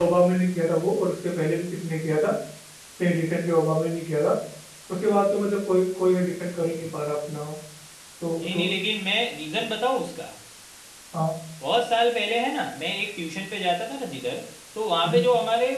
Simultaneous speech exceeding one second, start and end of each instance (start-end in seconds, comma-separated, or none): none